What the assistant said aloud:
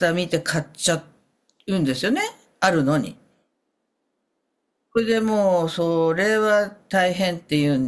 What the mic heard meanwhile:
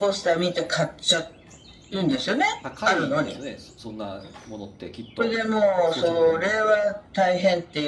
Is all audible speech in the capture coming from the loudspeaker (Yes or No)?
No